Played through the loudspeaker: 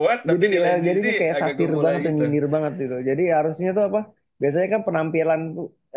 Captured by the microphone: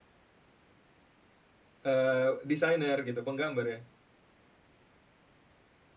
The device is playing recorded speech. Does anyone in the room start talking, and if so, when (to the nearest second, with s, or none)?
2 s